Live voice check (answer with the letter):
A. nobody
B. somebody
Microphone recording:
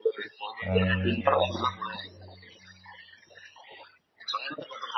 B